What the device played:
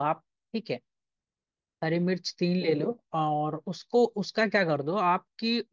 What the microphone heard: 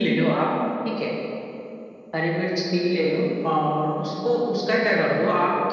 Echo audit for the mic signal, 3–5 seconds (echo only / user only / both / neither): echo only